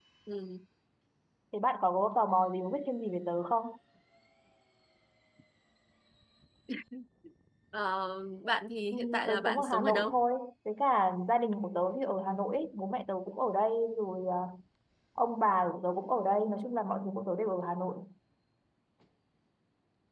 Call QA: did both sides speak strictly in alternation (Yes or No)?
No